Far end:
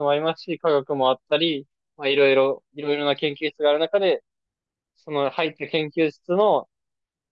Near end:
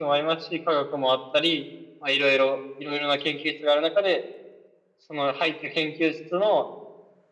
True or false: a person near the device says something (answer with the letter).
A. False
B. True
A